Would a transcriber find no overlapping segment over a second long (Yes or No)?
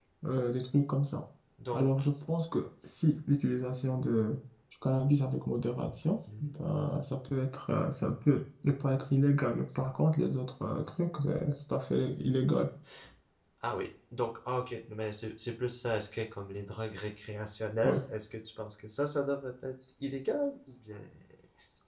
Yes